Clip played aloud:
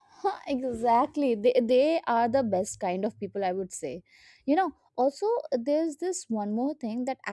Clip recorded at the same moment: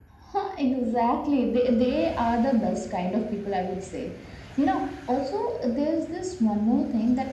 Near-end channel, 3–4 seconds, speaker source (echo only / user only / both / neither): echo only